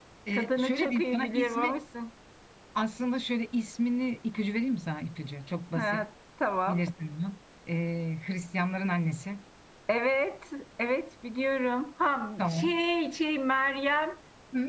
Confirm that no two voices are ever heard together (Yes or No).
No